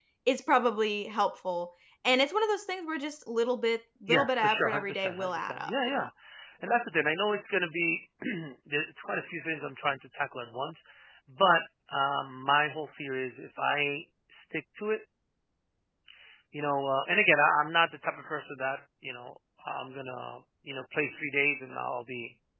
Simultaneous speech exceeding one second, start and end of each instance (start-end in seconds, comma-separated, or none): 4.1-6.1